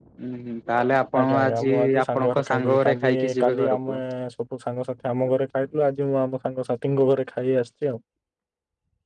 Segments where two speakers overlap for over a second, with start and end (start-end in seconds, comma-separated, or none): 1.2-4.0